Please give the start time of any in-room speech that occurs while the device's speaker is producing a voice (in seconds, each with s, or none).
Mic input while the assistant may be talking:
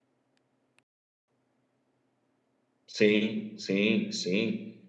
2.9 s